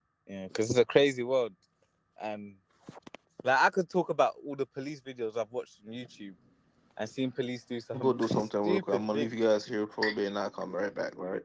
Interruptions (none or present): present